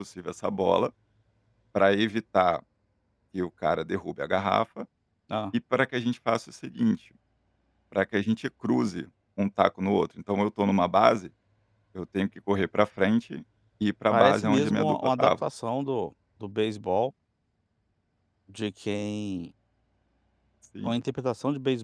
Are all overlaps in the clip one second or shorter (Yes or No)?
No